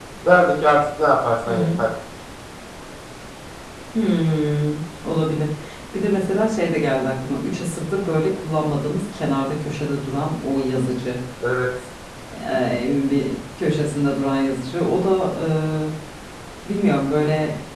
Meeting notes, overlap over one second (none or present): none